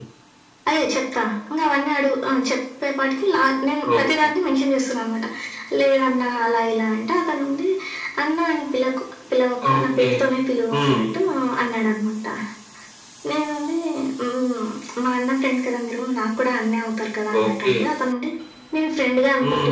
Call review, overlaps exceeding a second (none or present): none